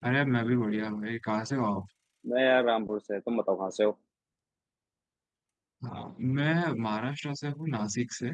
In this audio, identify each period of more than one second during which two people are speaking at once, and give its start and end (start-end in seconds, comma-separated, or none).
none